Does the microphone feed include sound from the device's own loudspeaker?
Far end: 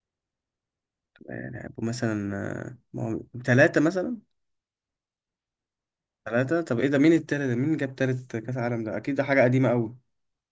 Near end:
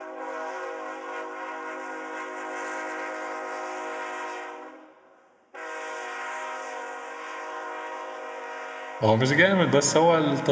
No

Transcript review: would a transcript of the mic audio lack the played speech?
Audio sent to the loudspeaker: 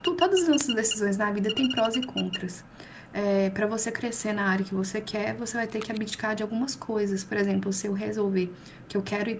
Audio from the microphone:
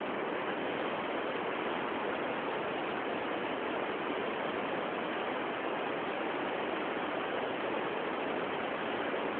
Yes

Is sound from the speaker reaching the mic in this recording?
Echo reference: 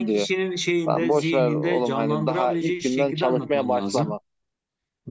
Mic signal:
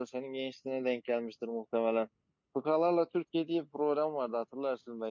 No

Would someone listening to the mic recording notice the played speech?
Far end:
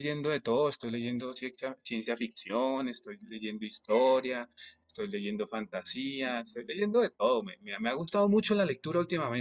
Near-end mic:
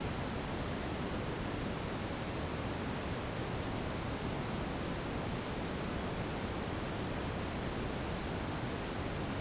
No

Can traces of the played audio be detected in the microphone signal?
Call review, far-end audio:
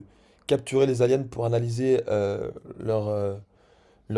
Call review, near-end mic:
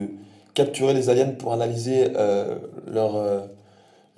Yes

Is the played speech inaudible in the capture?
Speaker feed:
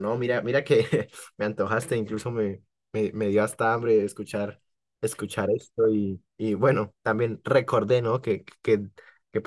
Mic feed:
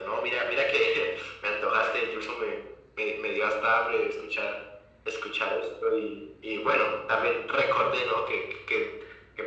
No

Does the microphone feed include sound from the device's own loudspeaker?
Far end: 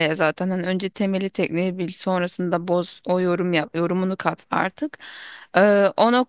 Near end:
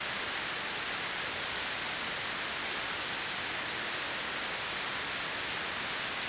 No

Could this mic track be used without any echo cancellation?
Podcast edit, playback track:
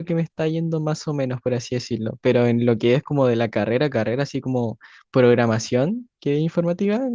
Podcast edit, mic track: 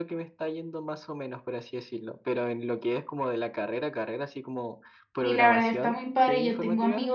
No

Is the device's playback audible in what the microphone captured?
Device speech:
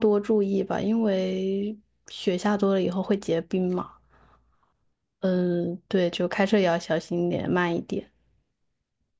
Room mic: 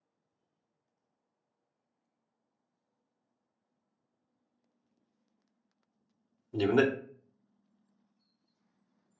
No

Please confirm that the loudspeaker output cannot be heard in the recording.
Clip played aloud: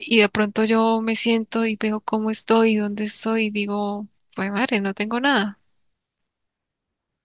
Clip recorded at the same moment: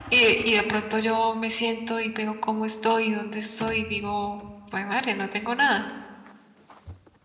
No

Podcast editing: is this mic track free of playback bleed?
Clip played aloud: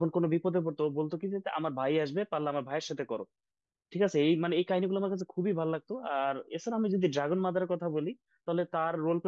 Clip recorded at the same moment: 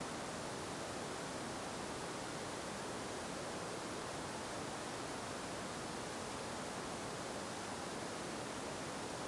Yes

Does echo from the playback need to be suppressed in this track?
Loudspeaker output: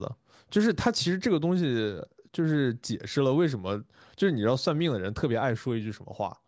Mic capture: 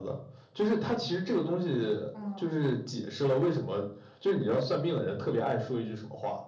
Yes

